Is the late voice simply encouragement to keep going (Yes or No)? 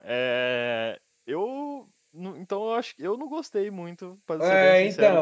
No